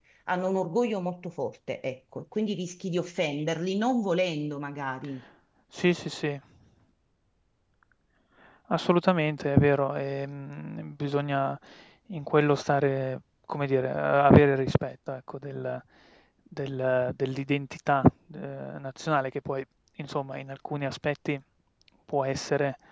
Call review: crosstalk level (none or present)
none